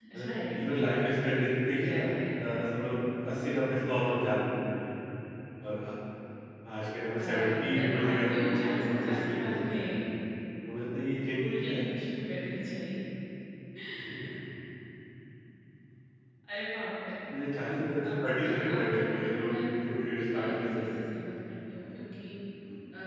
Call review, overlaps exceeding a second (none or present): present